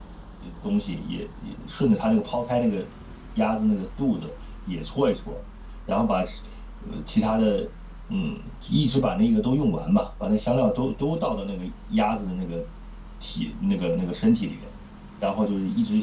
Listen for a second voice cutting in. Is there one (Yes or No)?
No